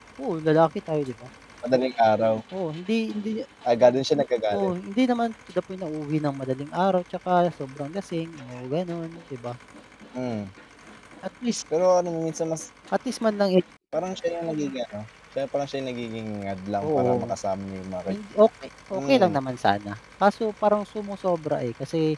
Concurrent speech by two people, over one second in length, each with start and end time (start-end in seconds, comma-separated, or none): none